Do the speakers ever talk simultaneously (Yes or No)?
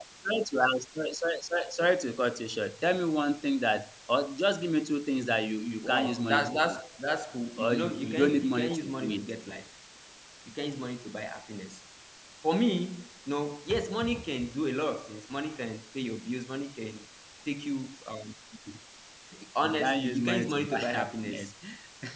Yes